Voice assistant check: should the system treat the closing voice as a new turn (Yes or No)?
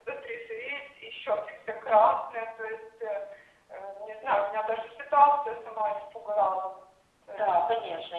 Yes